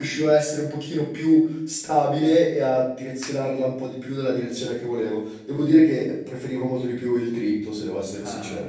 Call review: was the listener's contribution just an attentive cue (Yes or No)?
No